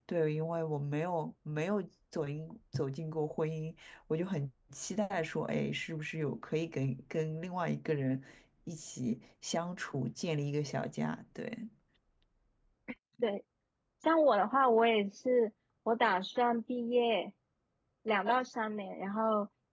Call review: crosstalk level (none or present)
none